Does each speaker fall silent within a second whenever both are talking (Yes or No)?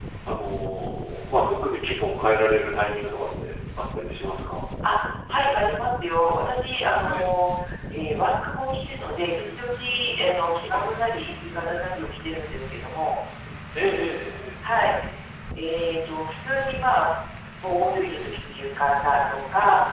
Yes